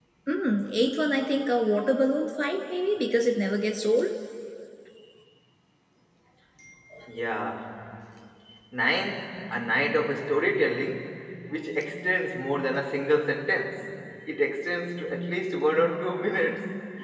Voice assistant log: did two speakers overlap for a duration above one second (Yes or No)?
No